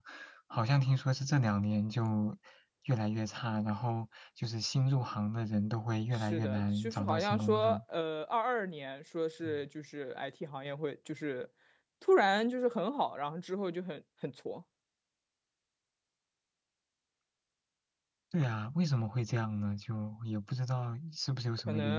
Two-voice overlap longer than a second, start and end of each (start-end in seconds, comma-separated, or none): 6.1-7.8